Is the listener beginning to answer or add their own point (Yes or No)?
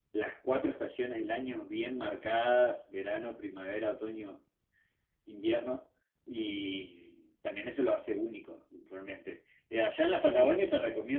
No